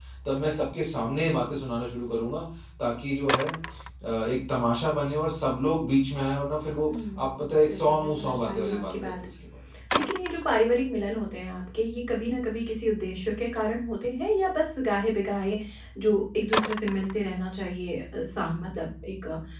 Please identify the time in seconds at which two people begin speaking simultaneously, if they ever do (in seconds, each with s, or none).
6.9 s